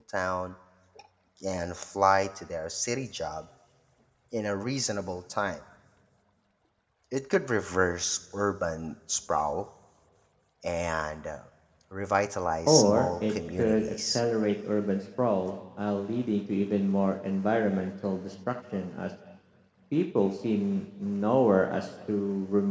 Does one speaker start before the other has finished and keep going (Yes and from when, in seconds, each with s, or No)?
Yes, from 12.7 s